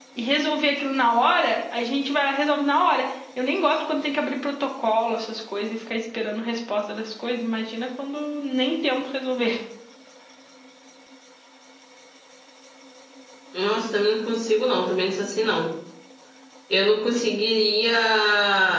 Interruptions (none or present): none